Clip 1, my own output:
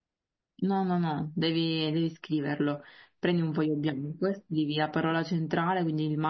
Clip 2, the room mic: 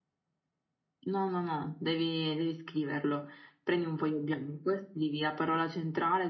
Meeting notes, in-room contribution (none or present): none